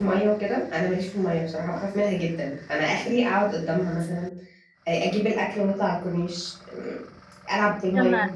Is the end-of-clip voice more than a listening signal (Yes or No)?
Yes